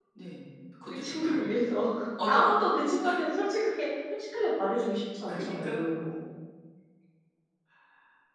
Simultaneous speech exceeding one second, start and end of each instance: none

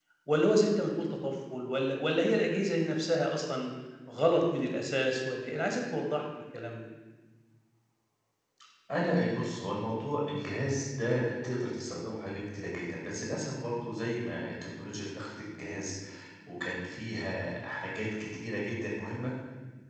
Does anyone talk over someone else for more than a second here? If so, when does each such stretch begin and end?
none

